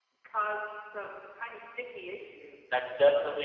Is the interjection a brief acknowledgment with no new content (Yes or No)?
No